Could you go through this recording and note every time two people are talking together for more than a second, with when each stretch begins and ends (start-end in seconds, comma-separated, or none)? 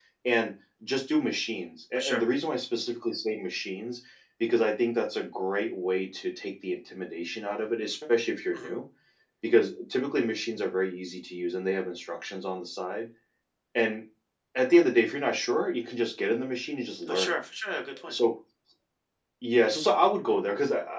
none